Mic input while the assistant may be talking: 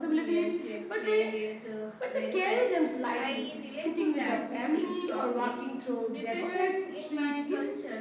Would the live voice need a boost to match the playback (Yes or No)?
Yes